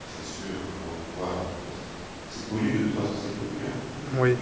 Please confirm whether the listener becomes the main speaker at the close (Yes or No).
No